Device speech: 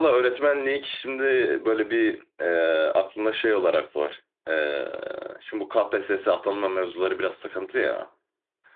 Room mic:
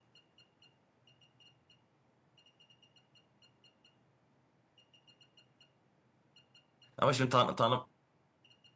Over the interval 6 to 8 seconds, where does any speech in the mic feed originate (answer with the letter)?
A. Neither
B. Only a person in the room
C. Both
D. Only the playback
B